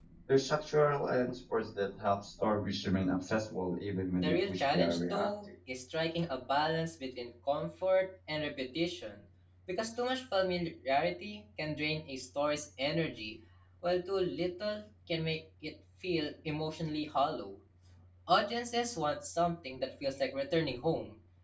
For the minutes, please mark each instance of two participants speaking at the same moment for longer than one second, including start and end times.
4.1-5.3

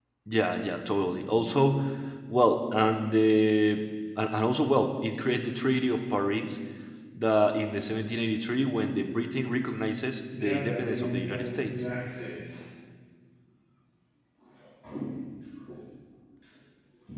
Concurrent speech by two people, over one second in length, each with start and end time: 10.3-11.9

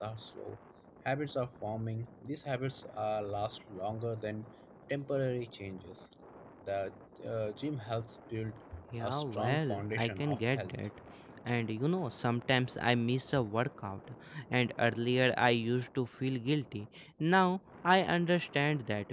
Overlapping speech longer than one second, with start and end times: 9.0-10.7

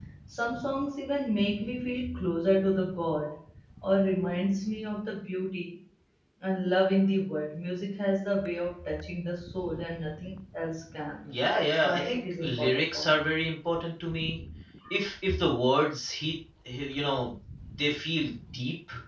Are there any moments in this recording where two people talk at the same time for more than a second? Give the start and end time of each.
11.5-13.0

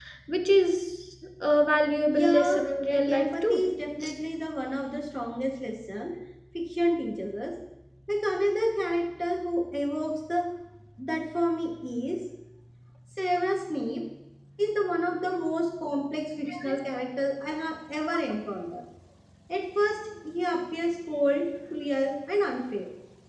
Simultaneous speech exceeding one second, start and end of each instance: 2.1-3.6

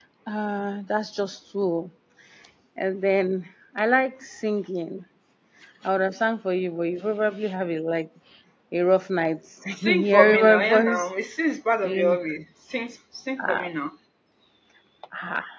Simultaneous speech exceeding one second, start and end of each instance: 9.7-11.1

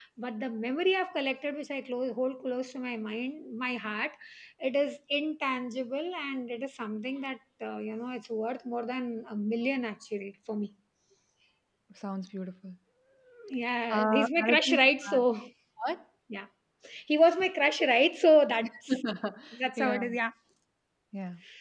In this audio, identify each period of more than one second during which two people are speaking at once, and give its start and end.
13.9-15.2

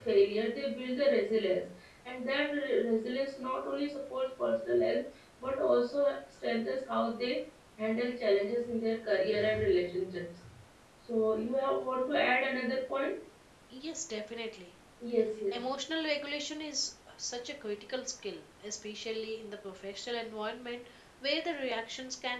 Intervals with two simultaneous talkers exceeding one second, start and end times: none

